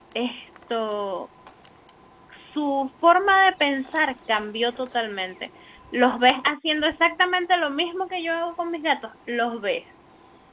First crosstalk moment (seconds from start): none

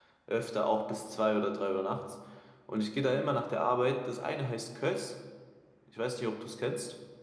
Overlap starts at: none

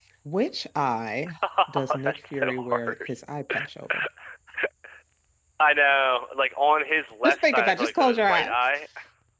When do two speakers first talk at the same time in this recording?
1.7 s

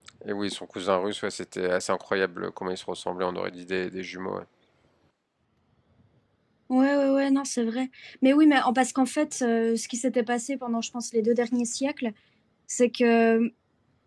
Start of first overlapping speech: none

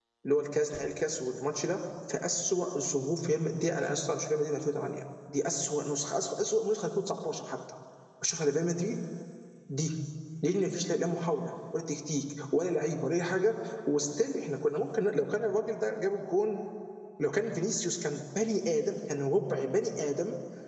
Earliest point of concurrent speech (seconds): none

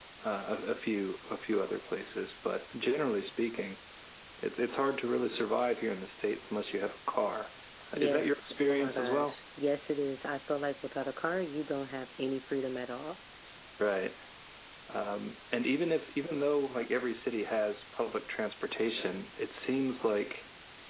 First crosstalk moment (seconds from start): 8.0 s

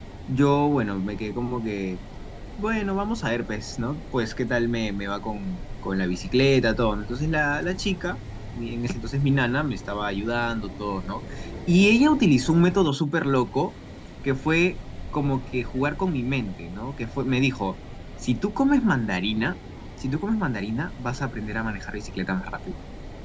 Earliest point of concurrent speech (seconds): none

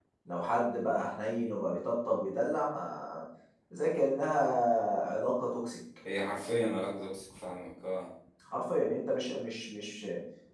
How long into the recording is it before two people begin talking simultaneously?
none

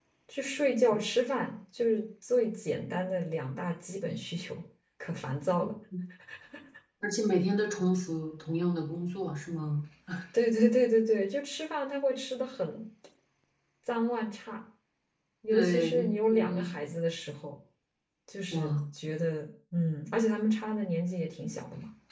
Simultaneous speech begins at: 15.5 s

